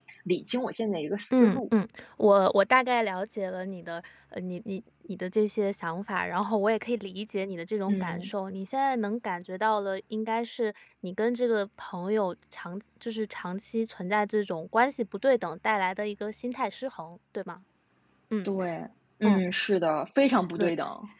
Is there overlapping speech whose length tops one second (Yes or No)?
No